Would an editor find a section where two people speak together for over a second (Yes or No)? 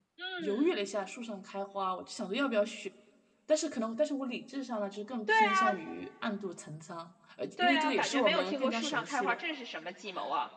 Yes